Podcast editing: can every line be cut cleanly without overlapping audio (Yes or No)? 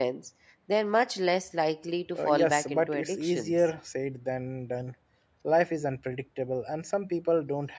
No